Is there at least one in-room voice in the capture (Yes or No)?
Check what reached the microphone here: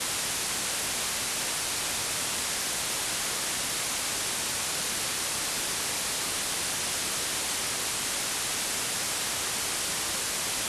No